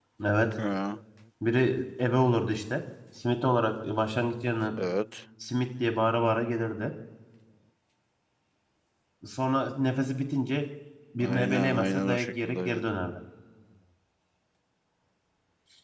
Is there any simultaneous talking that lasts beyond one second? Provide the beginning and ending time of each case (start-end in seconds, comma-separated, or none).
11.2-12.8